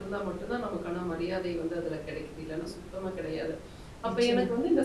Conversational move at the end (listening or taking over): listening